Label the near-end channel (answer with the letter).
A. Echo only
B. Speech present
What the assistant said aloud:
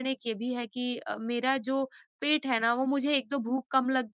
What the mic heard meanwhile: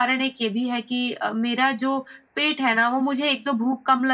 A